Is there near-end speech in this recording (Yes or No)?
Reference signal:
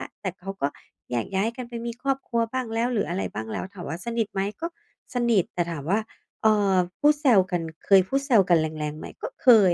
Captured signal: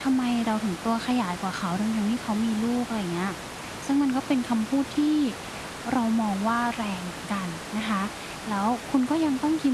Yes